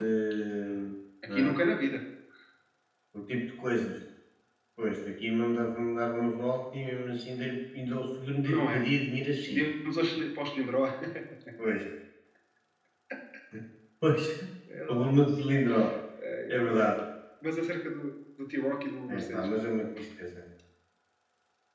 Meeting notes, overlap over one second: none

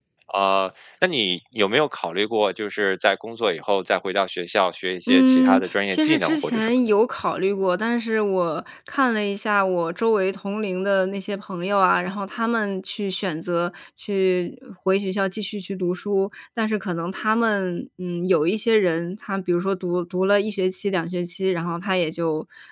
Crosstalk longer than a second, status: present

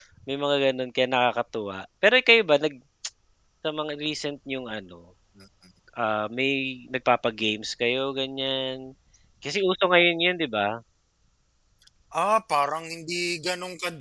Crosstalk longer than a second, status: none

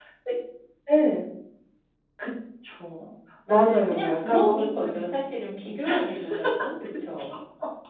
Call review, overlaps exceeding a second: present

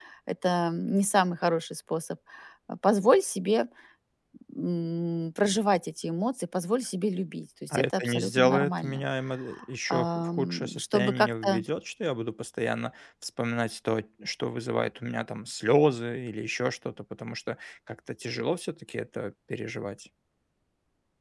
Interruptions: present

